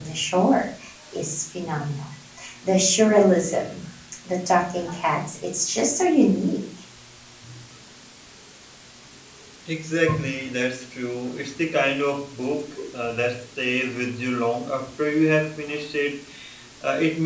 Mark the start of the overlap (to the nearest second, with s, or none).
none